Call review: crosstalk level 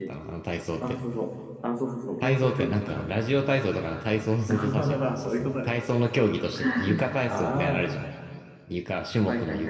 present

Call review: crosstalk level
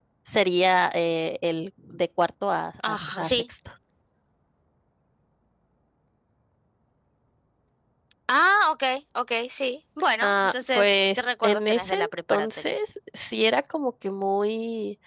present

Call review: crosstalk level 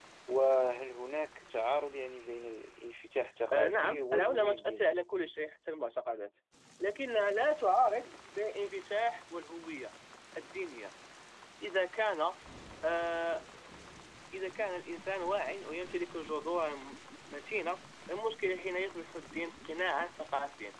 present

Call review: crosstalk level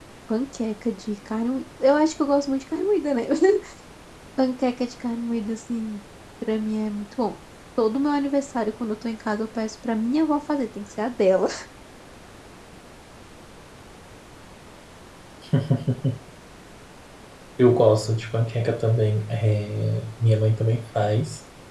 none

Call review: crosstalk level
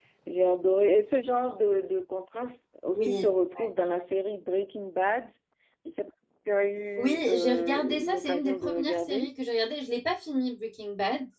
present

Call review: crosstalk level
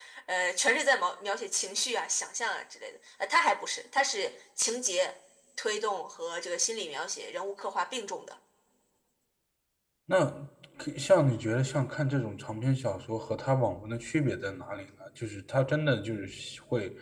none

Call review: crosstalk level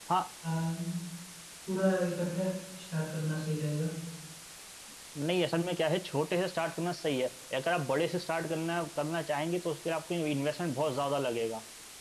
none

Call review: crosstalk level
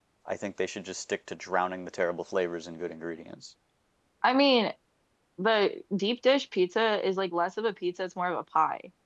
none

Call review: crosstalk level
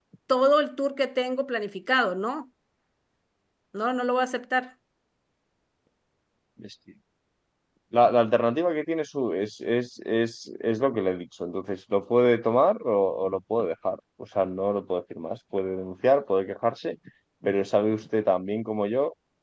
none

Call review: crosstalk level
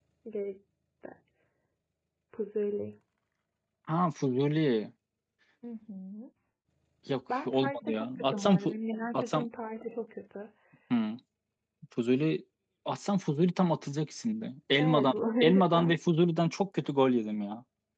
present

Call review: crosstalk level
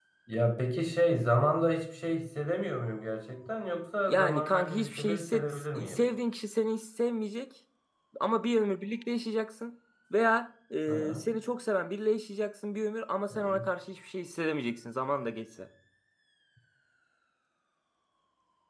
present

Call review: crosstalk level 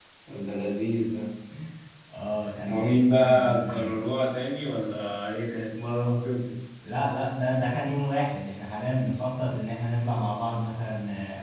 present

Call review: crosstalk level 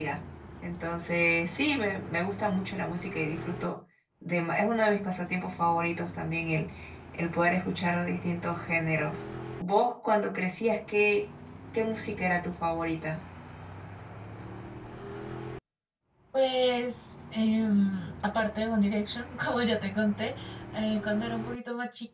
none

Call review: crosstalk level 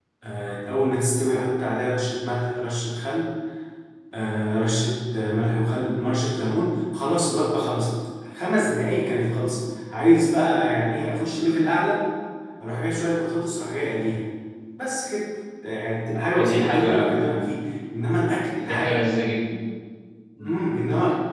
present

